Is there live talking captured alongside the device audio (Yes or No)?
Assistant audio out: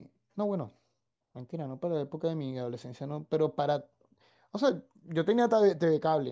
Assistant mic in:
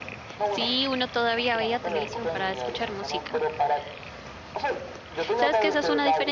Yes